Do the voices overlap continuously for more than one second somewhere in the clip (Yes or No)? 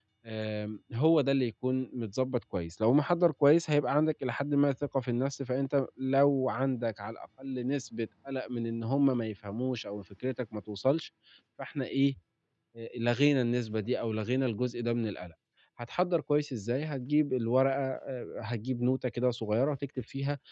No